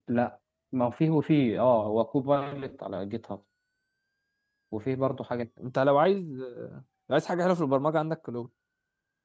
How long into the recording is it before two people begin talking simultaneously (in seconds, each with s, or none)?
none